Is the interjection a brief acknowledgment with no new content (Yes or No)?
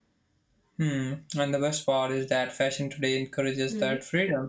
Yes